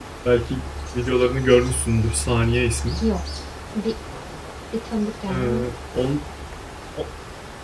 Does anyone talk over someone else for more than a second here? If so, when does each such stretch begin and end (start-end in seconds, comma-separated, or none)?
none